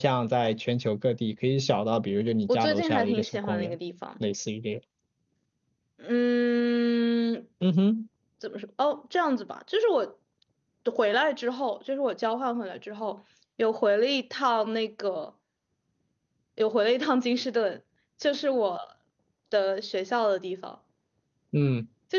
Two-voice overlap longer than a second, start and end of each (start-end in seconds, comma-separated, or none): 2.5-3.8